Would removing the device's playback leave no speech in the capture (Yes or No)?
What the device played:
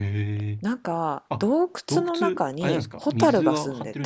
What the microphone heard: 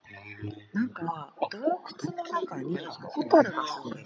Yes